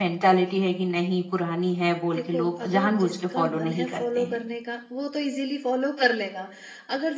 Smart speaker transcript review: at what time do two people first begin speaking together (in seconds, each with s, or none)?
2.1 s